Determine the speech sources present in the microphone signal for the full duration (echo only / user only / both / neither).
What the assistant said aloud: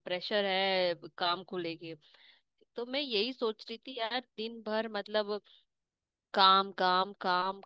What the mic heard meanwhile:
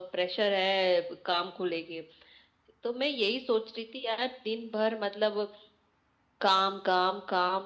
echo only